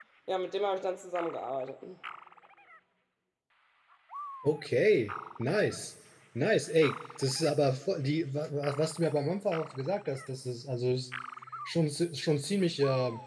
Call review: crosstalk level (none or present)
none